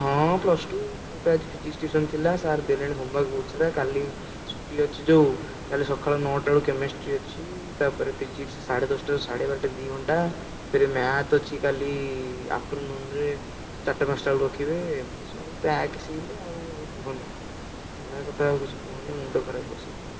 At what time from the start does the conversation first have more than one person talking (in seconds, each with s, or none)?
none